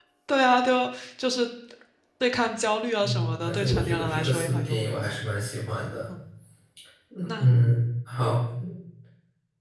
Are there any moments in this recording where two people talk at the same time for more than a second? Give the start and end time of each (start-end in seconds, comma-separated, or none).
3.0-5.2